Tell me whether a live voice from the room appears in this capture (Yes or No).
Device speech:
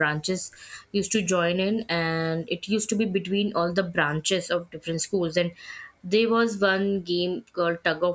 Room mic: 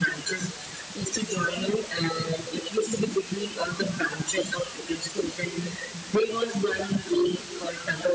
No